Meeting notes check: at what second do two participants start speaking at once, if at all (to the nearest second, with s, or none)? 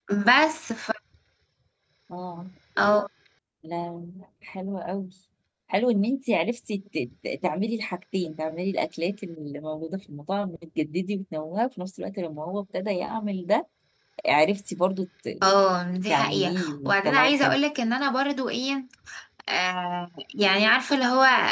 16 s